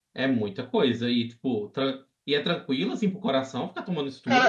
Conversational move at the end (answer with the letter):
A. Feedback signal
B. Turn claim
B